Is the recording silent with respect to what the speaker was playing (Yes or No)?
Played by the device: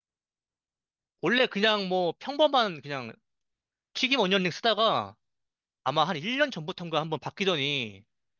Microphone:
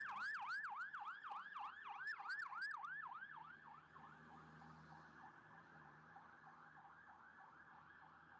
Yes